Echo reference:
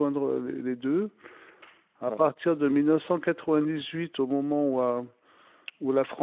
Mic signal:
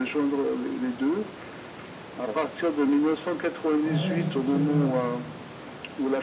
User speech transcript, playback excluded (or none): Ouais, ouais, c'est très bien.